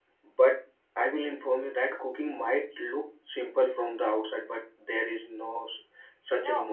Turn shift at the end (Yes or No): Yes